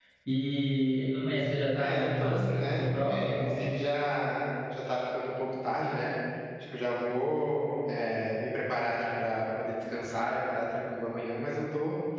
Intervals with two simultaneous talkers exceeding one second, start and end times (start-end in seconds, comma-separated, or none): 1.8-3.4